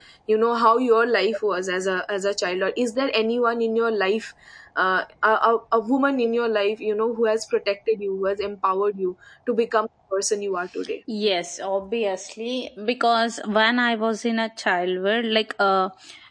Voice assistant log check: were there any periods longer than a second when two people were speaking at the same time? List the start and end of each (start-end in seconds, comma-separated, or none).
none